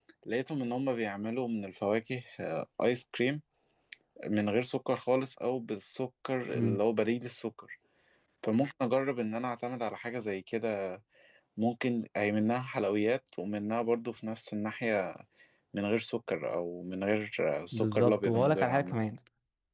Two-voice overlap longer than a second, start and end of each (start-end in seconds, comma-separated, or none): 17.7-19.0